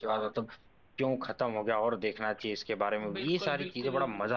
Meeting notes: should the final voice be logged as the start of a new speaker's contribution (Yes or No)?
Yes